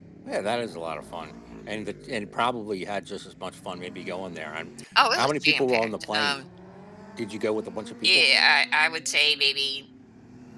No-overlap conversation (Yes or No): No